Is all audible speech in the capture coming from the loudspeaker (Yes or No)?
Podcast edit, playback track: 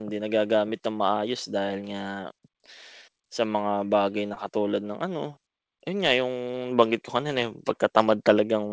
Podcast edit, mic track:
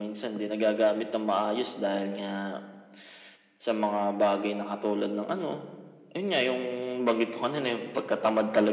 Yes